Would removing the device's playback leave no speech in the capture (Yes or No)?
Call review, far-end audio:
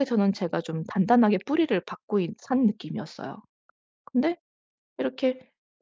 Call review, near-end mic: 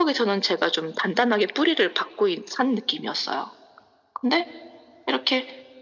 Yes